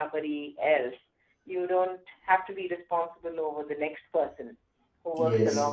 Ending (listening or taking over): listening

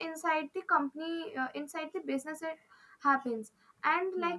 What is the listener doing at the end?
listening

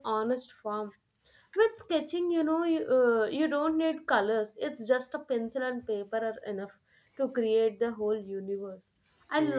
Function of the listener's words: listening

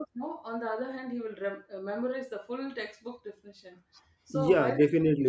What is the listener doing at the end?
taking over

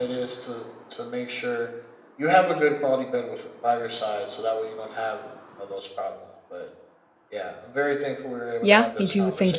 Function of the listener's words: taking over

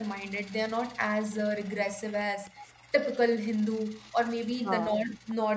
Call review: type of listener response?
listening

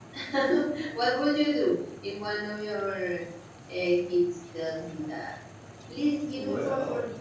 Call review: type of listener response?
listening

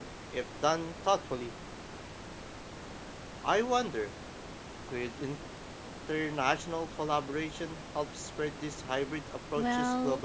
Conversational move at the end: taking over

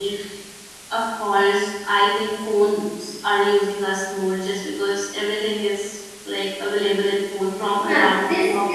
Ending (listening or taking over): taking over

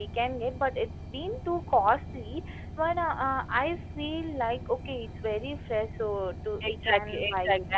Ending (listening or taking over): taking over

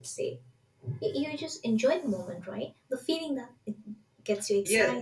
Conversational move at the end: taking over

